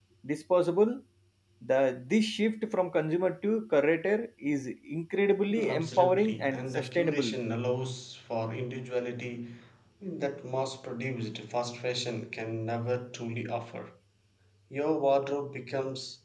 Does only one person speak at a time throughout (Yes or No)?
No